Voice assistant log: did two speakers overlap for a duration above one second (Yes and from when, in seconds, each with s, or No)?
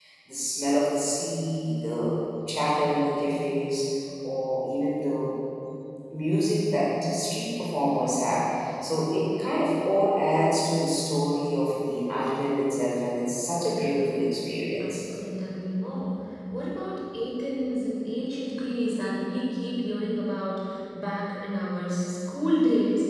No